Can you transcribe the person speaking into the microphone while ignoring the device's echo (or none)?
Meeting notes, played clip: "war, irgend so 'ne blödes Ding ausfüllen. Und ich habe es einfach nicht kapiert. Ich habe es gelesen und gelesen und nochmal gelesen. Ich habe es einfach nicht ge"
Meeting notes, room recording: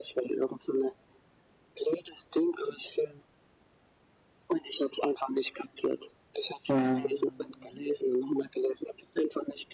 mhm,